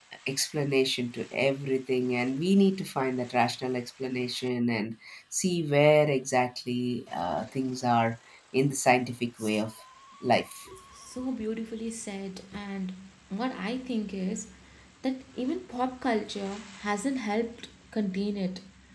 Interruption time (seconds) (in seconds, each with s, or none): none